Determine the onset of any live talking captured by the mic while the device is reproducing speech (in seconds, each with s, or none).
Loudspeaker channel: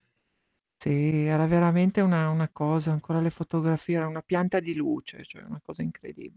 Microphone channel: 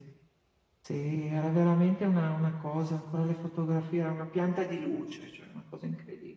none